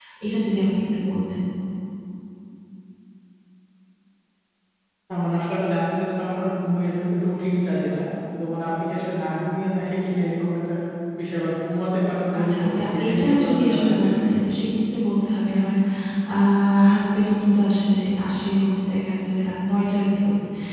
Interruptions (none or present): present